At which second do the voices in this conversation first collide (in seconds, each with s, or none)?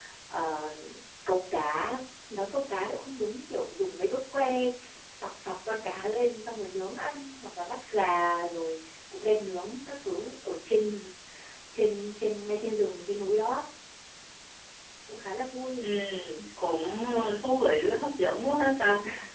none